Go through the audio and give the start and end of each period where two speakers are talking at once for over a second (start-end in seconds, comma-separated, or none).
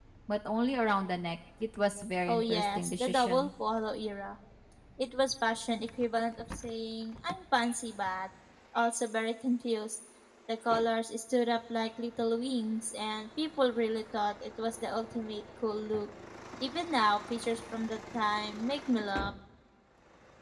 2.3-3.5